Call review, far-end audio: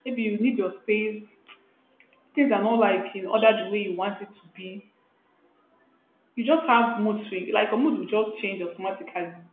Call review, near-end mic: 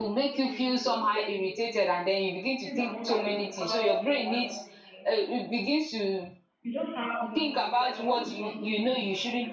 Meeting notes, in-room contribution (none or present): present